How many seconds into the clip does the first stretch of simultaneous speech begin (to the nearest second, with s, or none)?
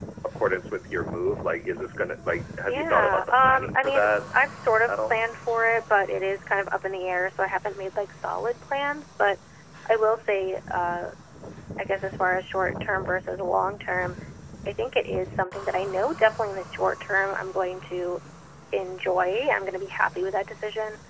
3 s